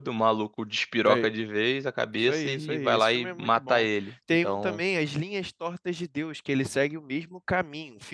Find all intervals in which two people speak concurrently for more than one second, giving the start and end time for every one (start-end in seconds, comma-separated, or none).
2.2-3.9